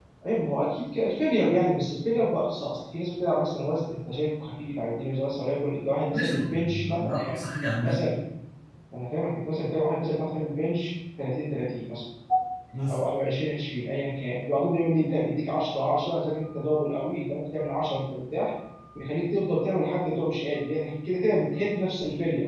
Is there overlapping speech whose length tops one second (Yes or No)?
Yes